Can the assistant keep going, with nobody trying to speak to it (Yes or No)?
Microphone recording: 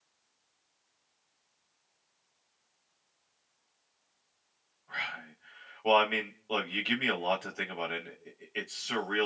No